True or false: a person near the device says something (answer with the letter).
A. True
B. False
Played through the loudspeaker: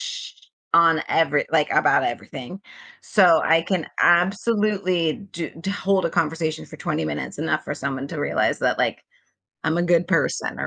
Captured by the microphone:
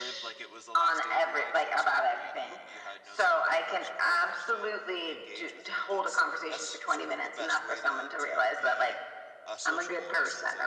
A